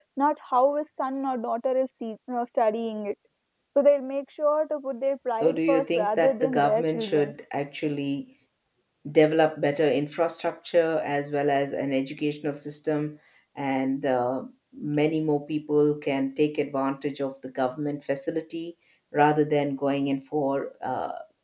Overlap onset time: 5.4 s

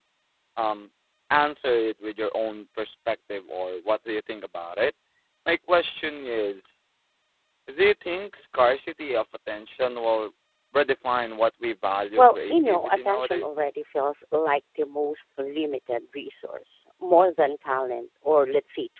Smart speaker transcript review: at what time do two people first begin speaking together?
12.2 s

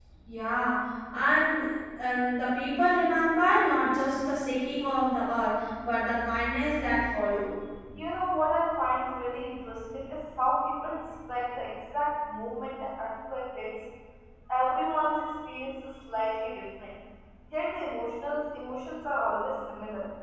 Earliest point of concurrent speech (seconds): none

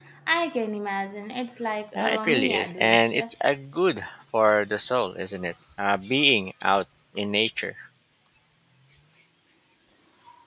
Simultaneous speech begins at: 2.0 s

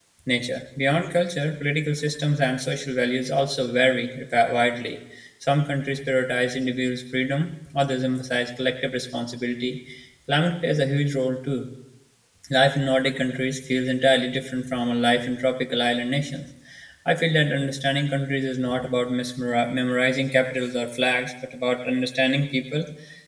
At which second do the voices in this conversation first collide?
none

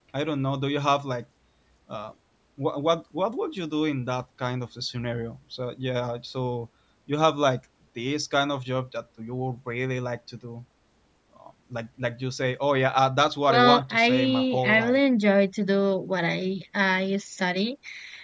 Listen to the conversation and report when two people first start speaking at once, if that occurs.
13.5 s

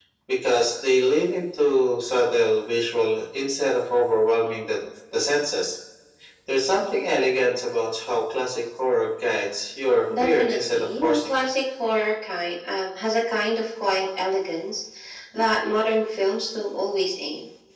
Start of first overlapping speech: 10.1 s

